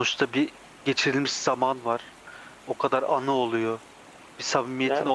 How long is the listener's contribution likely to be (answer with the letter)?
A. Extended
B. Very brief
B